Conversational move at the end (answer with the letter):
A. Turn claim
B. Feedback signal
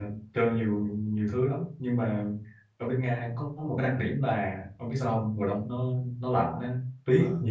B